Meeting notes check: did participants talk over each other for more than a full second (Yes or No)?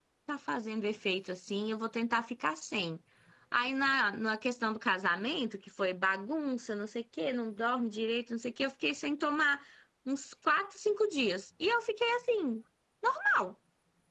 No